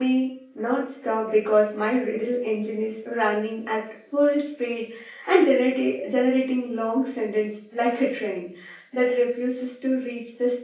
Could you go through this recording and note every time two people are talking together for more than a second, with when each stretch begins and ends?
none

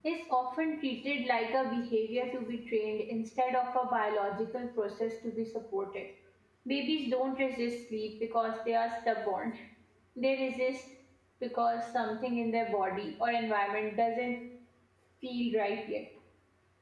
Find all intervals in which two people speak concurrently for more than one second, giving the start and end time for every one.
none

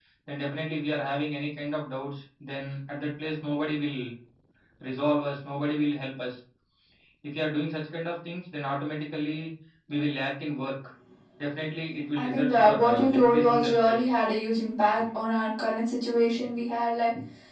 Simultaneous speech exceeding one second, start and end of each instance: 12.1-14.1

